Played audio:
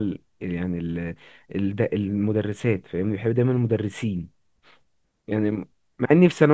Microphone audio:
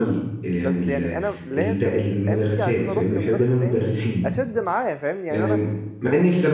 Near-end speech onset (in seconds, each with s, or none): 0.6 s